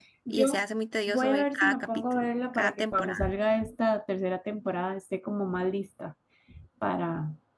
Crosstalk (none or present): present